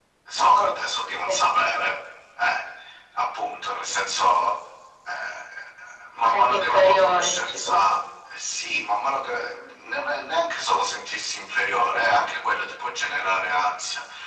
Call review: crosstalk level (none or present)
present